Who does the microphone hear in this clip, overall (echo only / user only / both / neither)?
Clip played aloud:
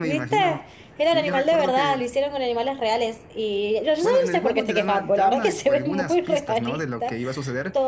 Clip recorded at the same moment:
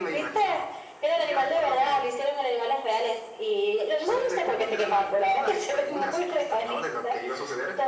echo only